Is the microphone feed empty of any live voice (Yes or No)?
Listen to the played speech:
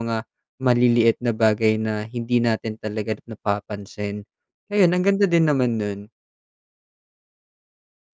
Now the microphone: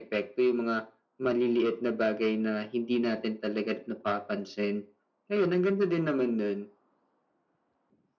Yes